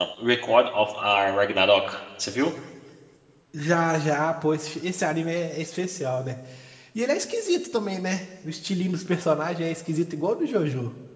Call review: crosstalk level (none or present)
none